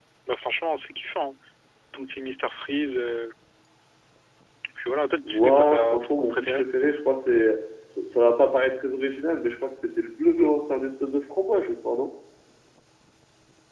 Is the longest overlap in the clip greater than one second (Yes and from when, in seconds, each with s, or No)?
Yes, from 5.2 s